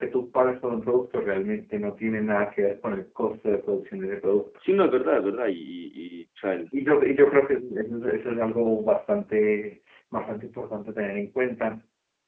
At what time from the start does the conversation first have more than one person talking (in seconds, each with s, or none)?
none